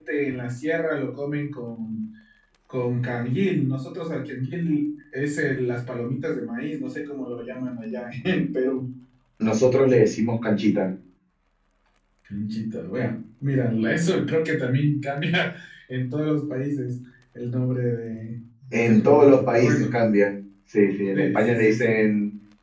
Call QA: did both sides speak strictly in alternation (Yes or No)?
No